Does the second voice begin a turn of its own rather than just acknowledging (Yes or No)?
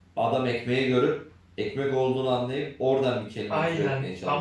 Yes